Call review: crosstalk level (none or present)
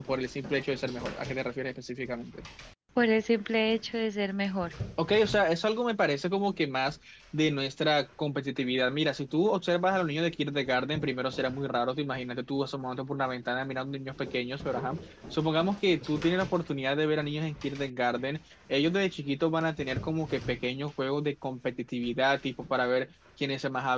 none